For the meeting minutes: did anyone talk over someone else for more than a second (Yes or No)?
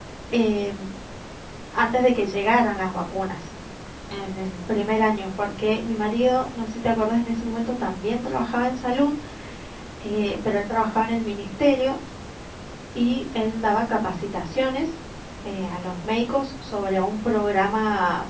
No